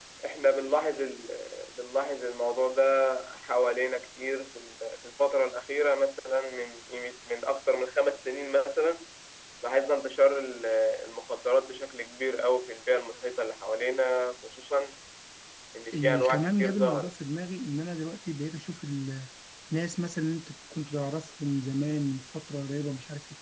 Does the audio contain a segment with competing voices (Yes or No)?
Yes